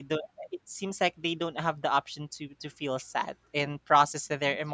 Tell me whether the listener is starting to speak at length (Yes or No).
No